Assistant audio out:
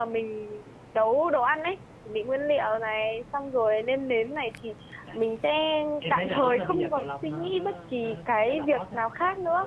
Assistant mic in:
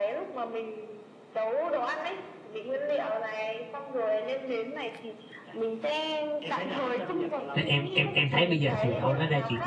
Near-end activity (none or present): present